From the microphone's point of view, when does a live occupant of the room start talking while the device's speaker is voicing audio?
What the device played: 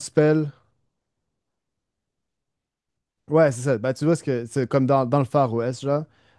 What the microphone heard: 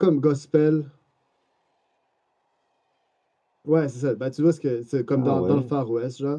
5.1 s

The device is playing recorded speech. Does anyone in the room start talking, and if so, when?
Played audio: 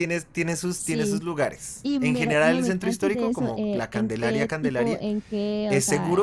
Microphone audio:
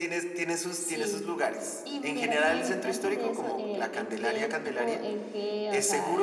none

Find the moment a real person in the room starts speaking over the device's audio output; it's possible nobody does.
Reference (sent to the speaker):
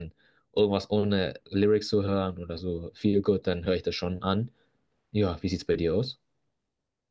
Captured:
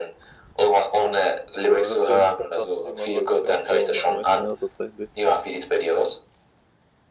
1.6 s

